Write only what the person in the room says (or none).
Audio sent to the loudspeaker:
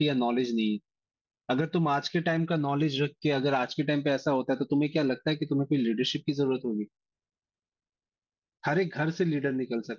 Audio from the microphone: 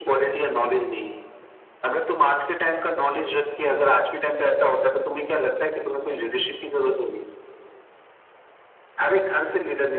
none